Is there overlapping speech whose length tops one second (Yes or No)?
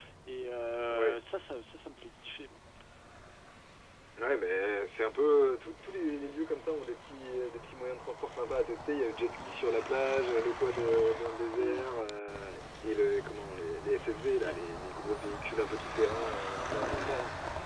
No